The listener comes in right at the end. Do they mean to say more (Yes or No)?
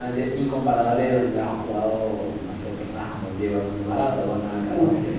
No